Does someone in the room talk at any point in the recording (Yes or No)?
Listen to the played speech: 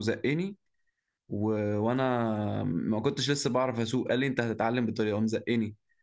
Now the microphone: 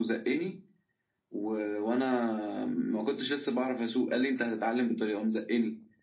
No